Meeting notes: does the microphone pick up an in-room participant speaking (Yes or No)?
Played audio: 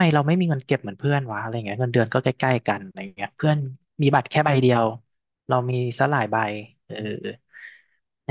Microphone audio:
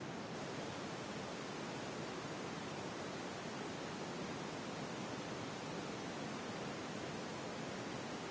No